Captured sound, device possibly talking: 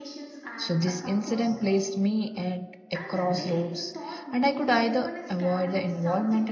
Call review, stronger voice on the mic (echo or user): user